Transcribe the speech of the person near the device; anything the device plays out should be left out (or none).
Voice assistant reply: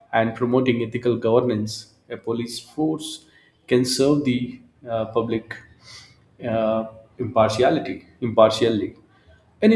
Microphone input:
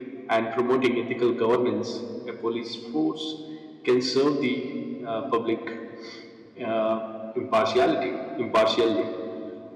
none